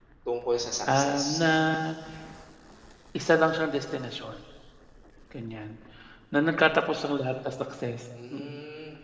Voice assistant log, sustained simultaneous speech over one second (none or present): none